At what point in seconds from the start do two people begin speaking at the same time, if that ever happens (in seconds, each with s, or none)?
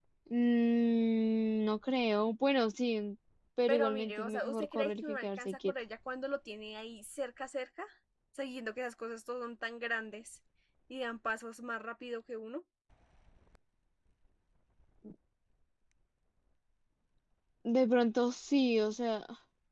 3.7 s